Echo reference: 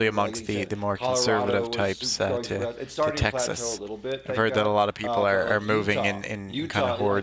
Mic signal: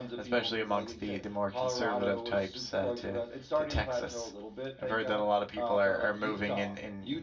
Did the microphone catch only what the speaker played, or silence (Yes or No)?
Yes